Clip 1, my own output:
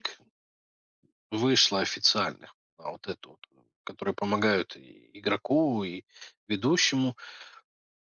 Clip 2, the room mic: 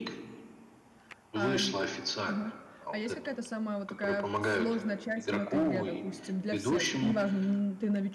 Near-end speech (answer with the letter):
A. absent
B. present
B